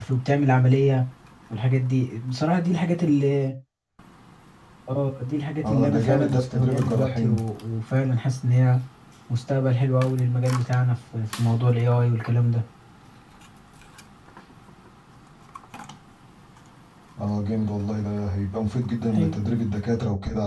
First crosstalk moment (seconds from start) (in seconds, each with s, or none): 5.7 s